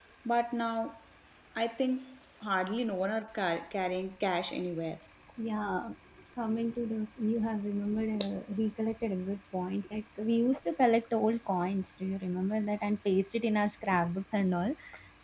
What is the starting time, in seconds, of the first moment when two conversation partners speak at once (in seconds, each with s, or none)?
none